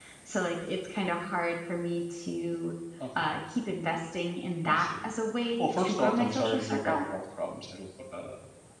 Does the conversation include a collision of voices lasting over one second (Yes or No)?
Yes